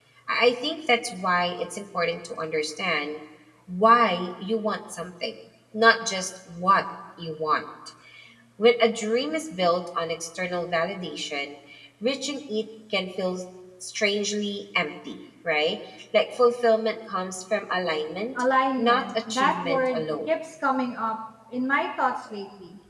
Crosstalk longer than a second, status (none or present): present